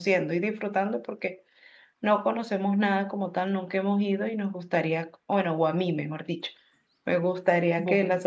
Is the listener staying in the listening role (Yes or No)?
Yes